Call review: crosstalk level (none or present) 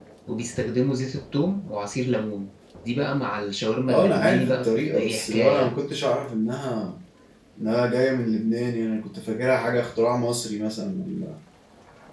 present